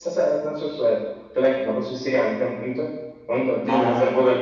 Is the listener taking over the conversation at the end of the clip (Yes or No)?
No